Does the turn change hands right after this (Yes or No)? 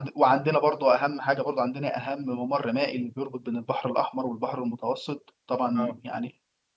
No